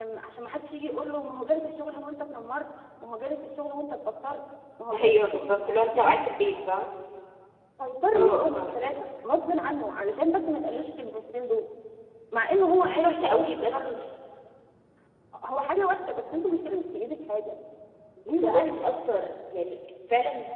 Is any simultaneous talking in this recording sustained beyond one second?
Yes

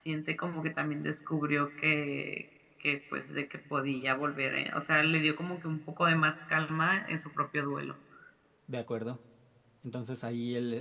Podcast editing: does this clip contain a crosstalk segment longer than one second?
No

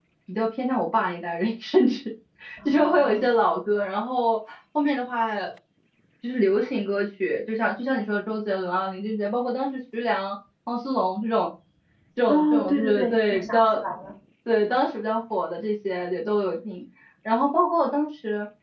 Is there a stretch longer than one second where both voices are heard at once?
Yes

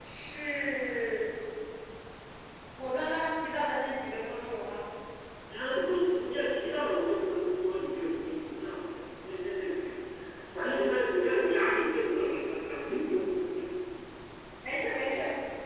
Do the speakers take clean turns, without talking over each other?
Yes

